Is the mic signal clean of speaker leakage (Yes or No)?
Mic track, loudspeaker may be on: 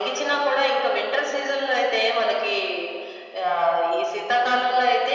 No